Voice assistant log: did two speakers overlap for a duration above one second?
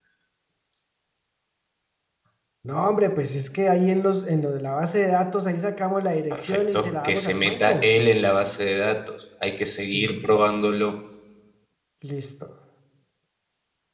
Yes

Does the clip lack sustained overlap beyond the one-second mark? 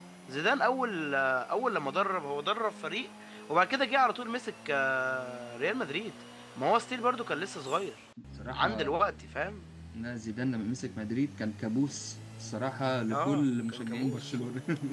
No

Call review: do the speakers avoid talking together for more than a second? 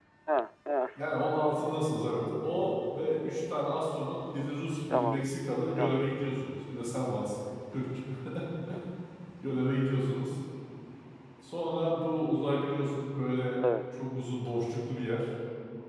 Yes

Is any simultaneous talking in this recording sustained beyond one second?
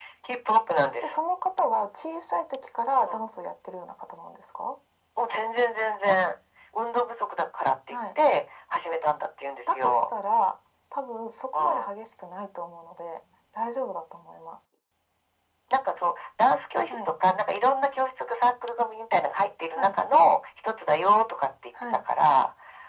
No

